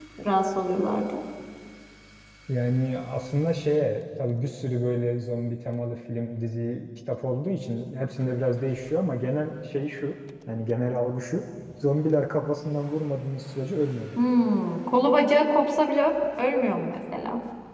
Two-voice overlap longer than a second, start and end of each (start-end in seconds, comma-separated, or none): none